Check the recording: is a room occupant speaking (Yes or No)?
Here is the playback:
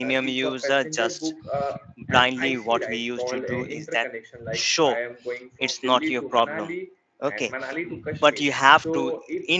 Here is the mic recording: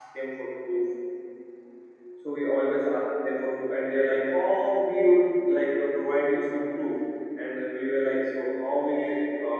Yes